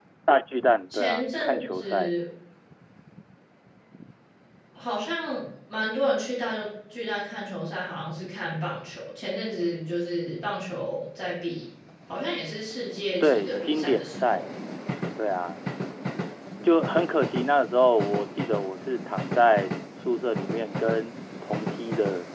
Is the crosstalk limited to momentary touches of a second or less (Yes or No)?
No